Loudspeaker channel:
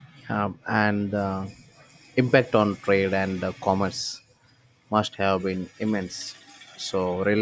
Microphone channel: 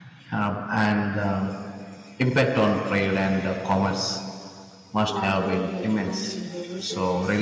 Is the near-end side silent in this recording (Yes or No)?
No